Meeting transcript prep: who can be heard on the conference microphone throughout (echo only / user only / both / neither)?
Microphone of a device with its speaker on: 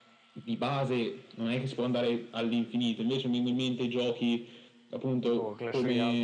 both